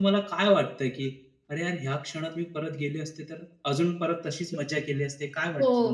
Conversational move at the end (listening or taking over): taking over